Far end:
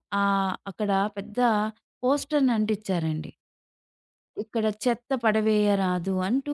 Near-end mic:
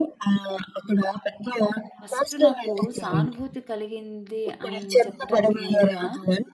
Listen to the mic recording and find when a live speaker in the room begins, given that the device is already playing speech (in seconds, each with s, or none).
2.0 s